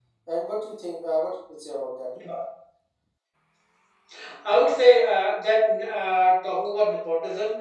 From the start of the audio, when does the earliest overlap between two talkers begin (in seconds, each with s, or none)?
none